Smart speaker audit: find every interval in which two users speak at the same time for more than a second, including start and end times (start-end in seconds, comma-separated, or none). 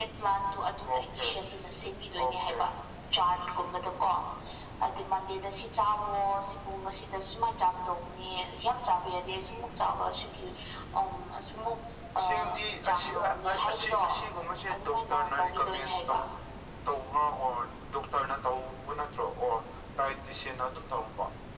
12.2-14.0, 14.7-16.0